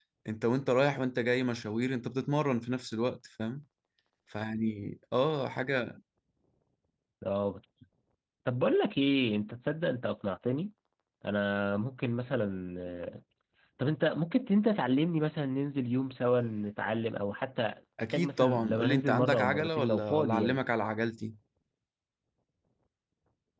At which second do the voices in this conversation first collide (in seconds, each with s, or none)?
18.0 s